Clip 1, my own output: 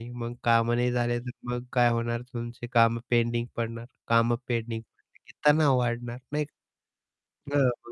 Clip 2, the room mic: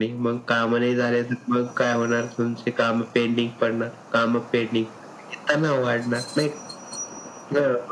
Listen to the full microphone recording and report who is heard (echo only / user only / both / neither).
echo only